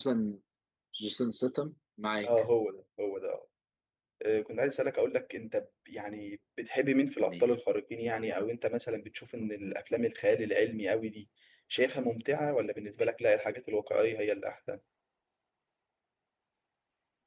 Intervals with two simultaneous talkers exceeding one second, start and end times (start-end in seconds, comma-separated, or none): none